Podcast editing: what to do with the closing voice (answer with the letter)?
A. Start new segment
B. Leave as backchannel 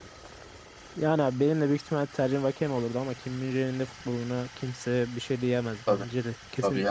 A